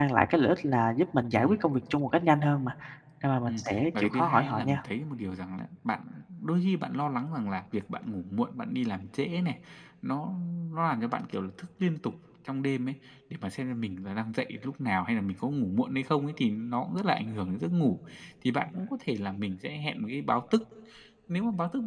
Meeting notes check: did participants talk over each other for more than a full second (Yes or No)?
Yes